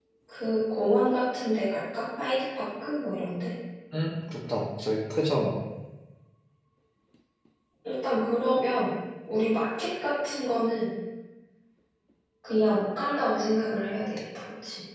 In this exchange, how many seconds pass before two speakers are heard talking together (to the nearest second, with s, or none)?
none